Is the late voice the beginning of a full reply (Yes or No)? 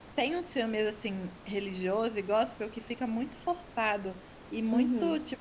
No